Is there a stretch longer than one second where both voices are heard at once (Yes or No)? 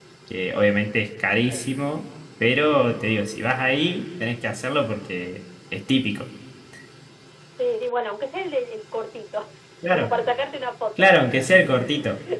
No